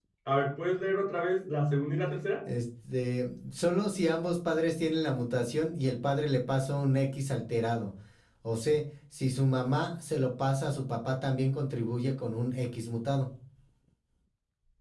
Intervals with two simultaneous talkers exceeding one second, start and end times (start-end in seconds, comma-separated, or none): none